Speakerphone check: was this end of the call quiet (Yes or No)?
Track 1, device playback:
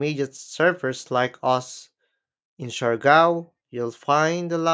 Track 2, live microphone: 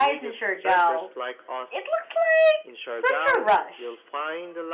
No